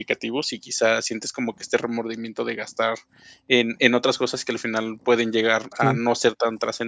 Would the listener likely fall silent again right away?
Yes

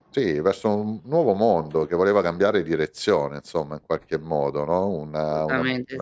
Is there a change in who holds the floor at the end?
No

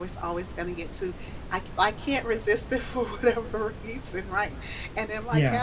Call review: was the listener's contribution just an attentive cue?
Yes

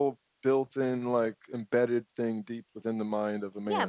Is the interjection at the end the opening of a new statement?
Yes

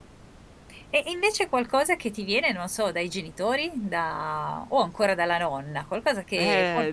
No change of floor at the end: No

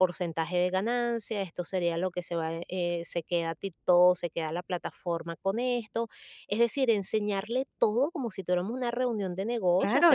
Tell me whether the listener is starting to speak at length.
Yes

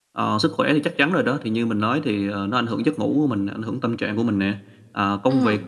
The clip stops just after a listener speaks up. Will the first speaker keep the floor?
Yes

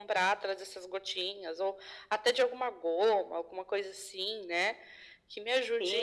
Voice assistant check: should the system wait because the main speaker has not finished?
No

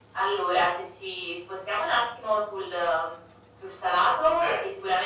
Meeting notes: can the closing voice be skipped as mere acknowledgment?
Yes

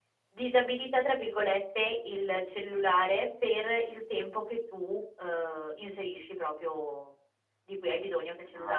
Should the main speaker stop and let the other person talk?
No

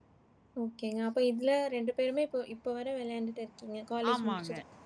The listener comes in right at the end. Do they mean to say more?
Yes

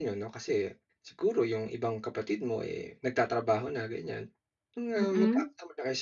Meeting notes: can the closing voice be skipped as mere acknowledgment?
Yes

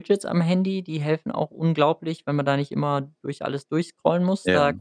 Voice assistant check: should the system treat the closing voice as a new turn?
No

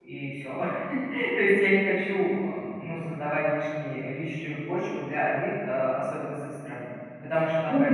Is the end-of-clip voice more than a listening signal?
Yes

